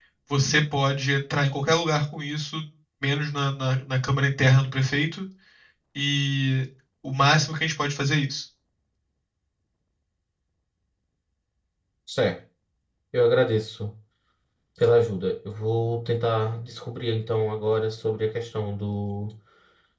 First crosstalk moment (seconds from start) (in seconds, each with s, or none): none